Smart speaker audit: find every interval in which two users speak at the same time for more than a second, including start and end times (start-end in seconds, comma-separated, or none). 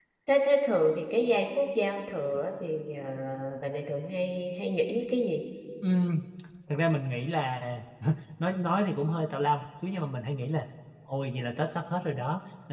none